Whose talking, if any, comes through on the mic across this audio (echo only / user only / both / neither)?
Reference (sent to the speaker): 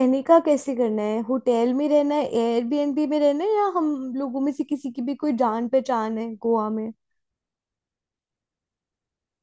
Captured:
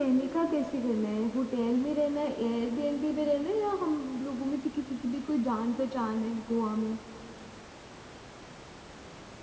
echo only